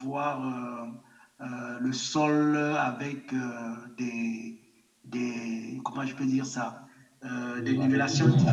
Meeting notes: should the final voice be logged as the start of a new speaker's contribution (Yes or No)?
Yes